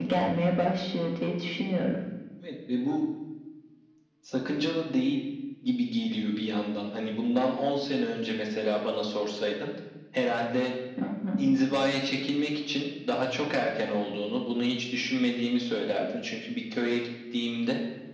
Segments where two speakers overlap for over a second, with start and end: none

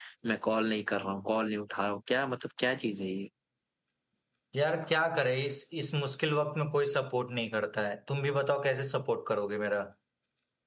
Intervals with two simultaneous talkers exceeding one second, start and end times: none

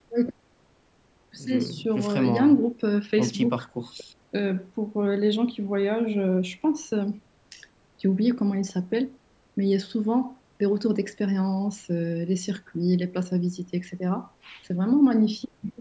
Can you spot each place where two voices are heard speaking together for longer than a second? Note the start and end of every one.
1.4-2.6

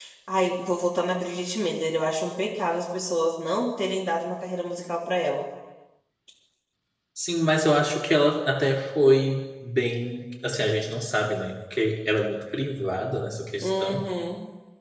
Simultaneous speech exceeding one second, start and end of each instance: none

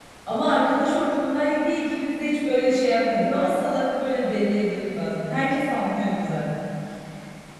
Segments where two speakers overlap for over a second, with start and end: none

